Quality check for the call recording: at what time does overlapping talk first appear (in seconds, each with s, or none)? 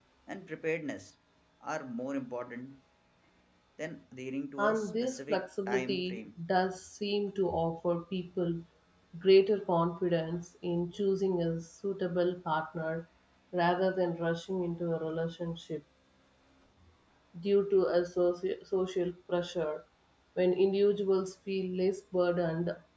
4.6 s